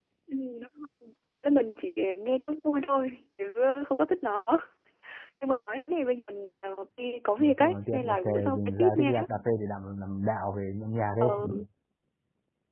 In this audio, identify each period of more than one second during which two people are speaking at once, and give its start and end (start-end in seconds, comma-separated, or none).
7.4-9.1